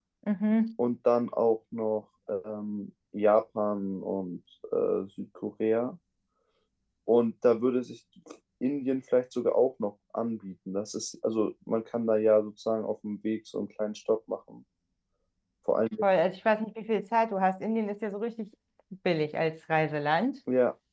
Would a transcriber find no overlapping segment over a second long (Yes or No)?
Yes